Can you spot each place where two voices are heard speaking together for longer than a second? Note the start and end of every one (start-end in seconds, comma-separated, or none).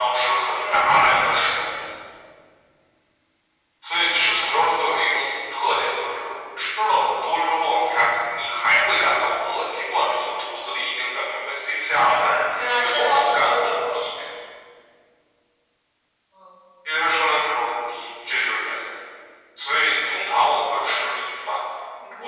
12.6-14.0